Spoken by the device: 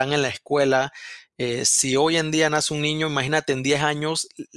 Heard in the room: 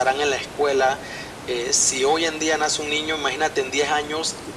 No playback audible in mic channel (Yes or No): No